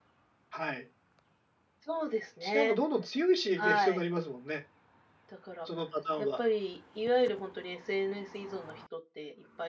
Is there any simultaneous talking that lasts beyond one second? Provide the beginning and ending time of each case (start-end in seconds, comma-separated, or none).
none